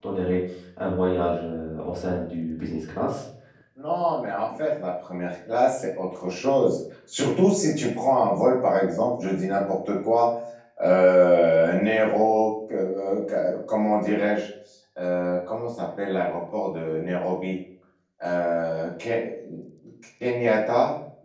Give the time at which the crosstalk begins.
none

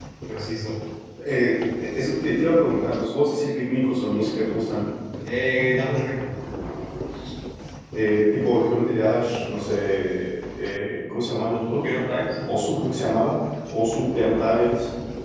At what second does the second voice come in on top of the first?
none

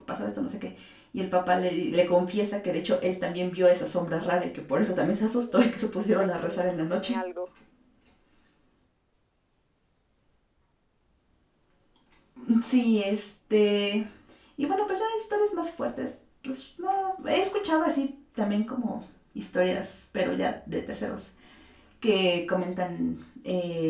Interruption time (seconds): 5.3 s

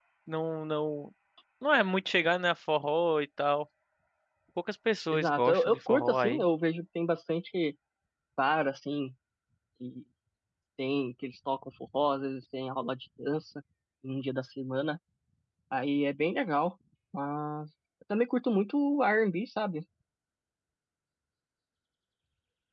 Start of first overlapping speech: 5.1 s

